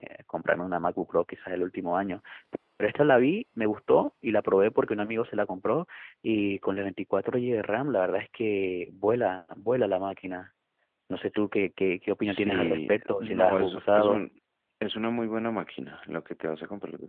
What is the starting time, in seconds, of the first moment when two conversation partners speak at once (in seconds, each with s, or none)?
12.2 s